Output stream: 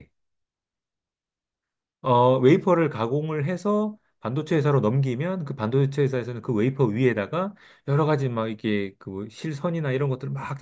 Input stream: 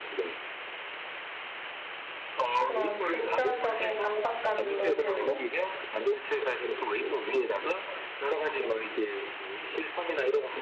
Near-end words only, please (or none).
그런 금전적인 압박감도 들고